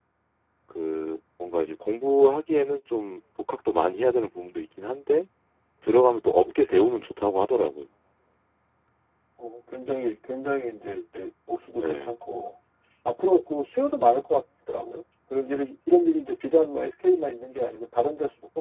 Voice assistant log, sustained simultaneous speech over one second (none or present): none